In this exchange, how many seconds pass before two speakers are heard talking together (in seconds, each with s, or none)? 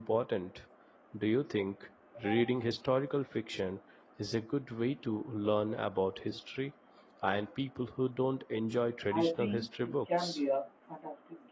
9.1 s